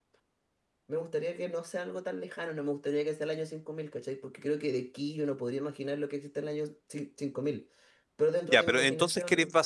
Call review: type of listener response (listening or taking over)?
taking over